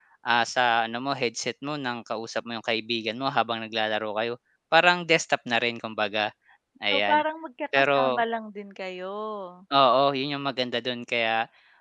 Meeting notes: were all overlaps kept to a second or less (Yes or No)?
Yes